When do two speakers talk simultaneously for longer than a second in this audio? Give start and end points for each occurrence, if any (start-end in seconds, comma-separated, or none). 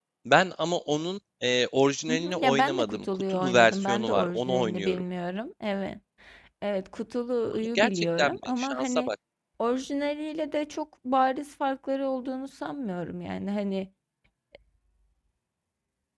2.1-5.0, 7.6-9.1